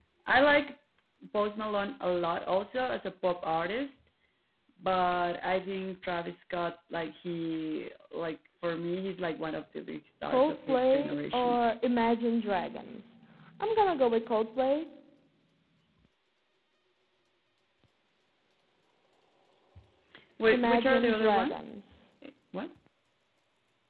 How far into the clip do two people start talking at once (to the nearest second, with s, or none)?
10 s